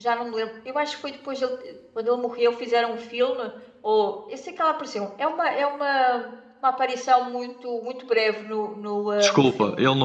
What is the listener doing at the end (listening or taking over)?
taking over